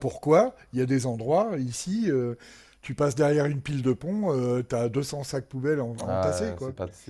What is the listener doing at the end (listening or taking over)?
taking over